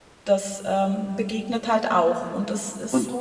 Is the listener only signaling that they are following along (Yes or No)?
No